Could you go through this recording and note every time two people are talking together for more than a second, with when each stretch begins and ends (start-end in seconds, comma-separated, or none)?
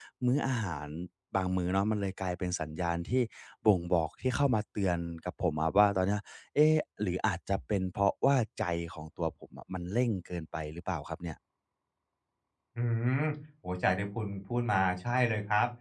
none